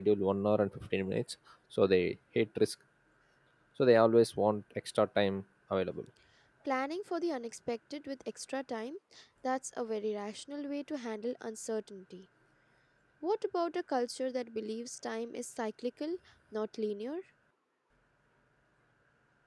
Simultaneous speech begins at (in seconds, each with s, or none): none